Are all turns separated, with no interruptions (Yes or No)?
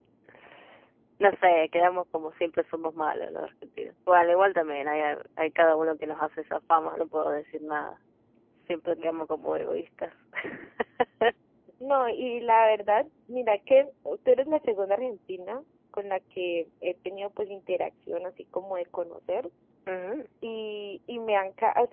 Yes